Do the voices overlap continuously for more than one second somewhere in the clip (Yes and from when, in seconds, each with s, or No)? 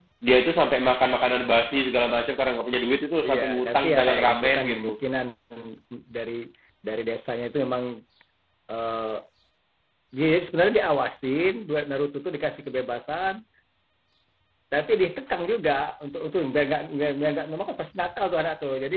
Yes, from 3.2 s